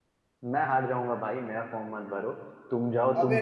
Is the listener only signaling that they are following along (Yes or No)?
No